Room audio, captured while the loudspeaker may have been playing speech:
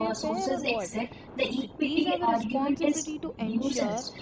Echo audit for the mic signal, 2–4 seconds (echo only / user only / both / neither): both